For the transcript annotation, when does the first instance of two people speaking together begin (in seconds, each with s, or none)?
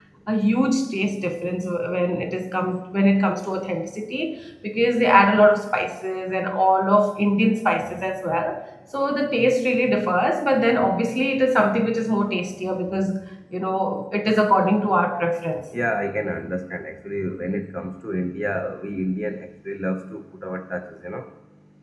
none